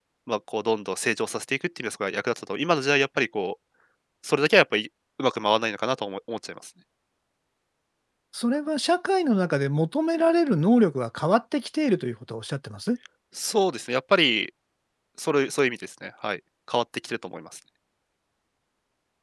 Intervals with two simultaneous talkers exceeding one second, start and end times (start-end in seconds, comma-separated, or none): none